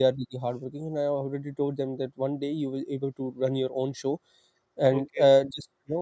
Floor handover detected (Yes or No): No